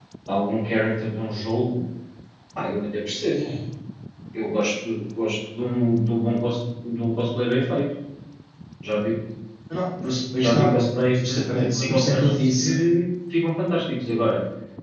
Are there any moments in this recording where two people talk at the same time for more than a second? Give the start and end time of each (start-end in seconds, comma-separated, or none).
11.2-12.8